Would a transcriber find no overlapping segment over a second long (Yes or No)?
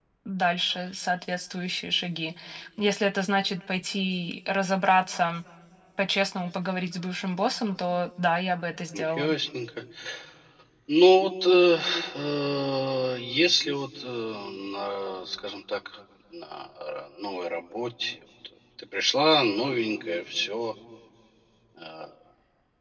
Yes